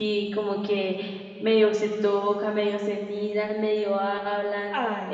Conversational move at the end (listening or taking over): taking over